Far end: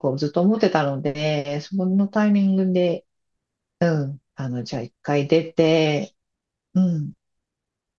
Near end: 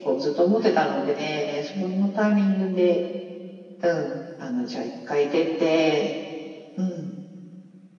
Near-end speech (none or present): none